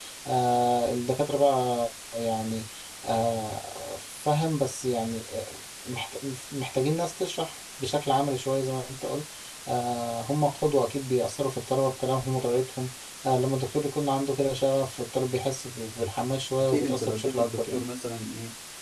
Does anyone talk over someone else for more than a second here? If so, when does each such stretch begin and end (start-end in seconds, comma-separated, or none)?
16.6-17.8